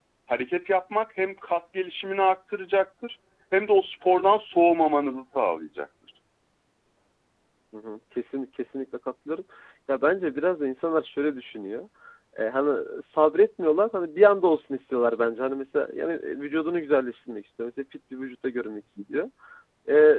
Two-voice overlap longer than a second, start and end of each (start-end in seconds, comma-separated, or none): none